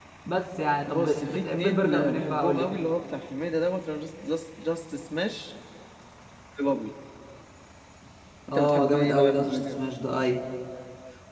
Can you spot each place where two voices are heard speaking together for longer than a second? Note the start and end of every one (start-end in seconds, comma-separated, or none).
0.9-2.8, 8.5-9.8